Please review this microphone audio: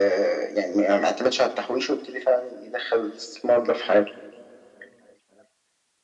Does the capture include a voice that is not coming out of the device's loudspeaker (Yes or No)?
No